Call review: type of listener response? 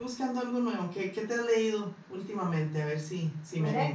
taking over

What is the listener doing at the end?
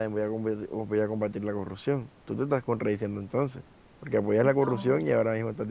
listening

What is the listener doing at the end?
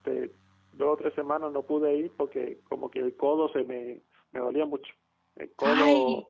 listening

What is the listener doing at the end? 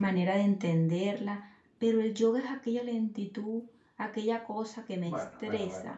taking over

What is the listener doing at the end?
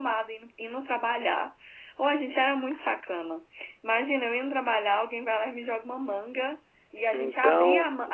listening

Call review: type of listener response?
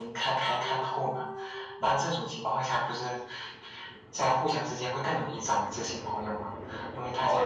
taking over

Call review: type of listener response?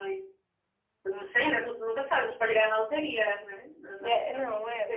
taking over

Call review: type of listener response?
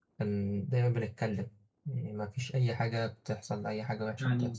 taking over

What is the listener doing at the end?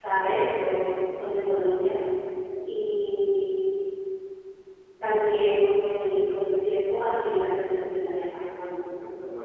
listening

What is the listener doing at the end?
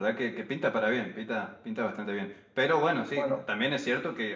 listening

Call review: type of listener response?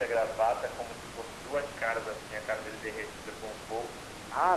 taking over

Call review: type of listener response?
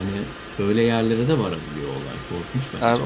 taking over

